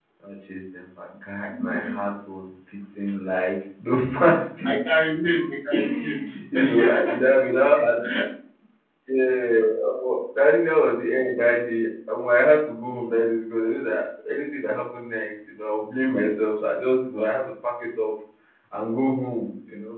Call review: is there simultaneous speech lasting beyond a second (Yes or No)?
Yes